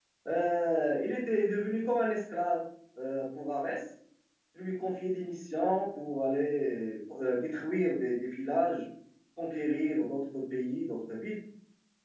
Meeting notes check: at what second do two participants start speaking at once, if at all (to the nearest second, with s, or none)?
none